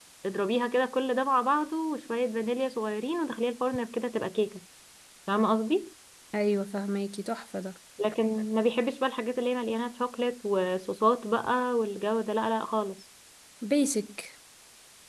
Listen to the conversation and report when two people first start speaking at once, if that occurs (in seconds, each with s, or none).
none